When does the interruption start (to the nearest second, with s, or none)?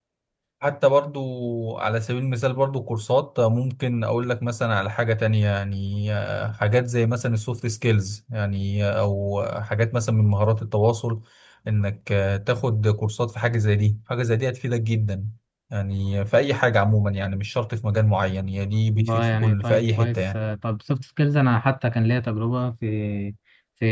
19 s